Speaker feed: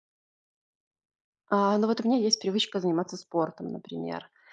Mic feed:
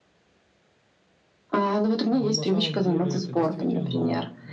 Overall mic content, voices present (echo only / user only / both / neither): both